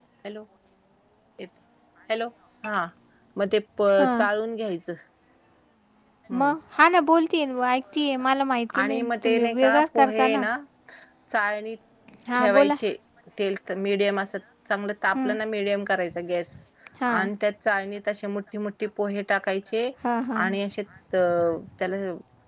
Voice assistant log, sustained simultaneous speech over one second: present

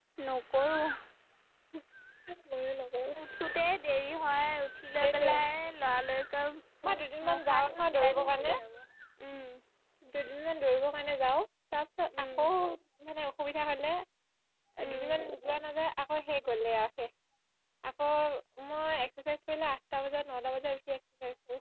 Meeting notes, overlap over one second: present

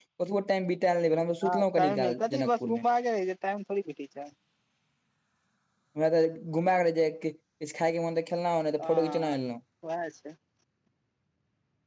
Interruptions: present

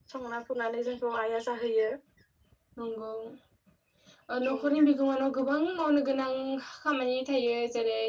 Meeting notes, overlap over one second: none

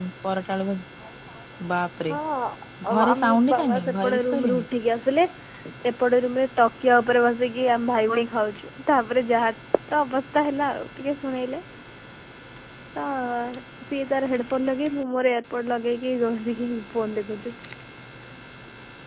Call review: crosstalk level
present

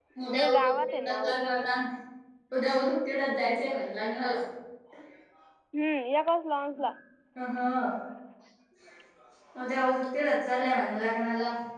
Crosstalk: present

